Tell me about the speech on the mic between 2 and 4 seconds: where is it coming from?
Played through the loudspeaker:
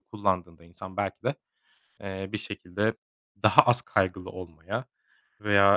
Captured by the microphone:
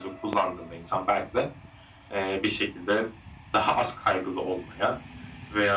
echo only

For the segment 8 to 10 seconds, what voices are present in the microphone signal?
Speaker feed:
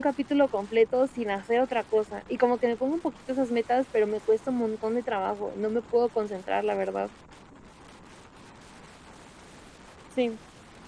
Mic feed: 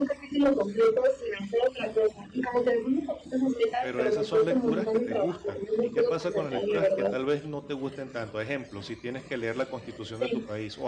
user only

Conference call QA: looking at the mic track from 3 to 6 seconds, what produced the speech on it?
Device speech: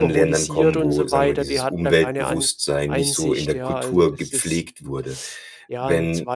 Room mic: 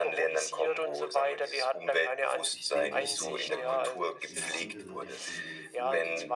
both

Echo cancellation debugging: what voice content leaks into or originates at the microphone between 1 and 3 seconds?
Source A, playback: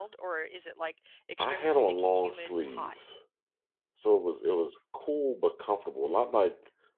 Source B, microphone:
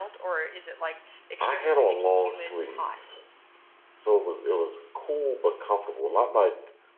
echo only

